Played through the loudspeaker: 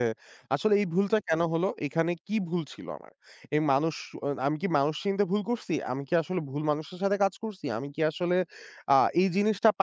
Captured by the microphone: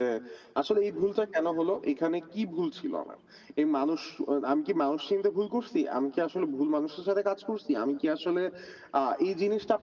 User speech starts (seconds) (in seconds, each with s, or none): none